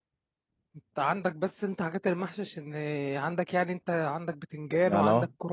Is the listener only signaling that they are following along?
No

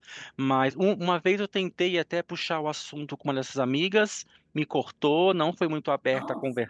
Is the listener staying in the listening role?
Yes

